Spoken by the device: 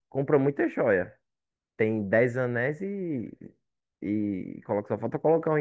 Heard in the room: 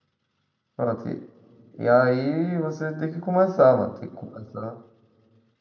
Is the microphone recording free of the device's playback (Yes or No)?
Yes